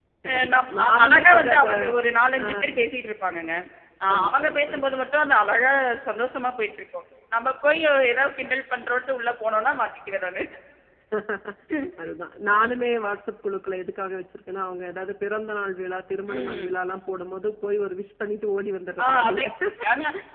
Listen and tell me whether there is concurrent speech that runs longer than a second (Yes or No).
Yes